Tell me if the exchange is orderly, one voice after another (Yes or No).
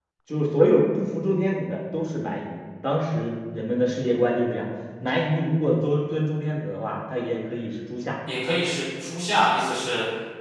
Yes